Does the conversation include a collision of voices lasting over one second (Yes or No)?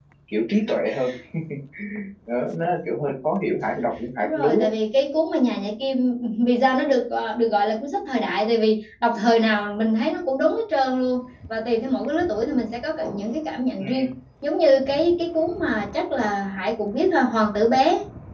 No